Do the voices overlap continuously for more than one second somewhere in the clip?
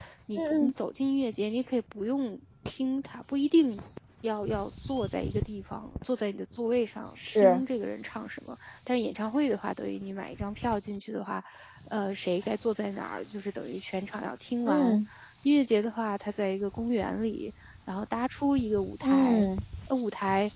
No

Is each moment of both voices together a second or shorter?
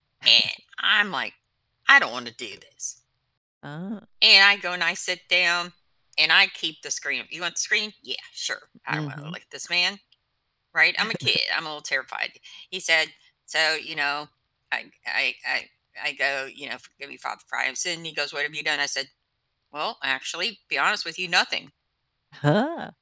Yes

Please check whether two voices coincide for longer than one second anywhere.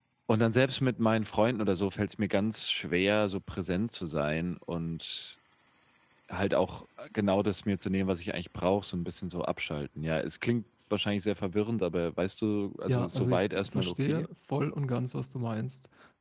Yes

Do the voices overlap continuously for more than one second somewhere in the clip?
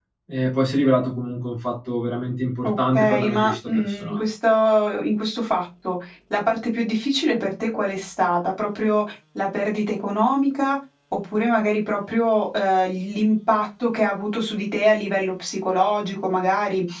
Yes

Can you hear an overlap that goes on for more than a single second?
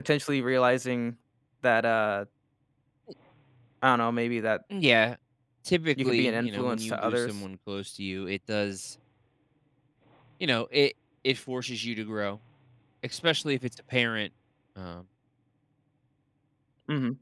Yes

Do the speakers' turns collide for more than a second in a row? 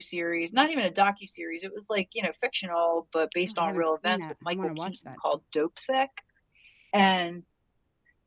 Yes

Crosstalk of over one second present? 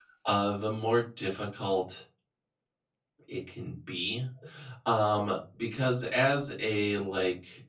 No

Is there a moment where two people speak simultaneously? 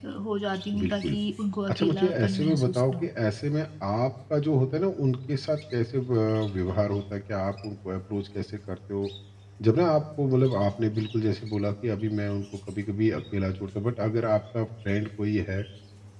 Yes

